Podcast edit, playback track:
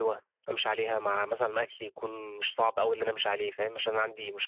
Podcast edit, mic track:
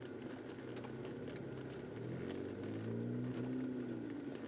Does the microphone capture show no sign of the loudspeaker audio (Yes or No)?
Yes